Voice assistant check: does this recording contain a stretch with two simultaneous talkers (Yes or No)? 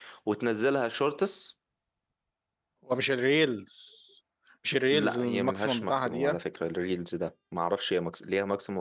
Yes